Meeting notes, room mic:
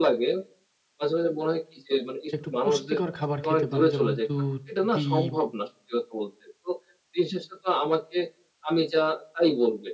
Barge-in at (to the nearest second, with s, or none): 2 s